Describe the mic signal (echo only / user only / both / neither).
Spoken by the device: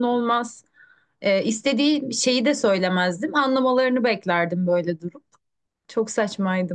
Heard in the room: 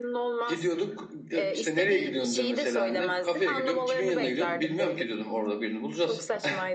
both